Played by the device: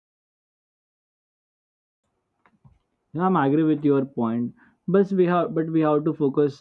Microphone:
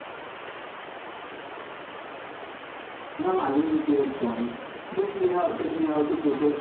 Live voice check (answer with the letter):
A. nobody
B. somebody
A